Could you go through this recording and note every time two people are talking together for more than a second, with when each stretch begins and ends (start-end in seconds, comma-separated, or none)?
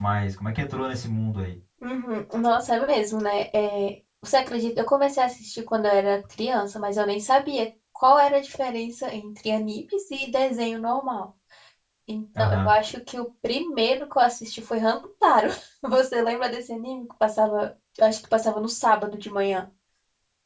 none